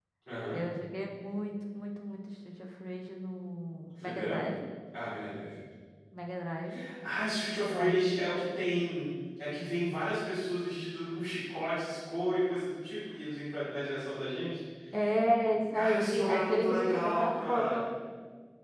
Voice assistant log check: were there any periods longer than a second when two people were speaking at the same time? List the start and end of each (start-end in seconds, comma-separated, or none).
15.5-17.9